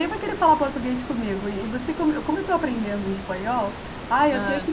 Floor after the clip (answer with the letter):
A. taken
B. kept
B